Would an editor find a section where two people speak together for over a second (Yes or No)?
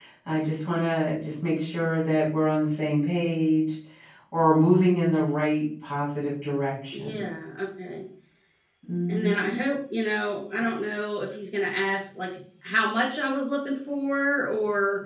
No